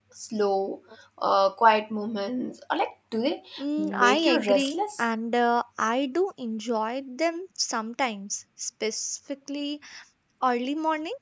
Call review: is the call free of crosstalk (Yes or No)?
No